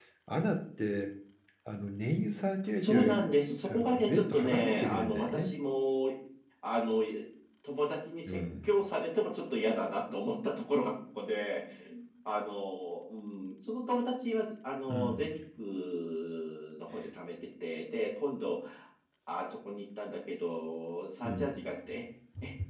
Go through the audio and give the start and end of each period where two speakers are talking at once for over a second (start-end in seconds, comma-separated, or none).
3.7-5.5